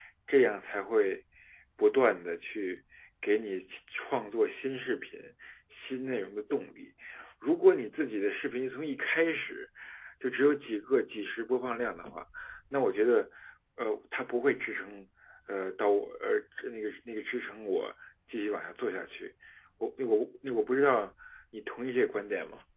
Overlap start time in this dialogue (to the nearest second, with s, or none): none